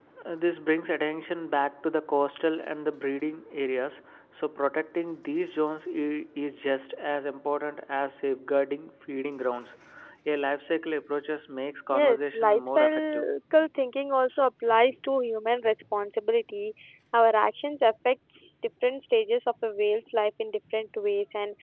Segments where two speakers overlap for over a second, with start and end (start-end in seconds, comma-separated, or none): 11.9-13.3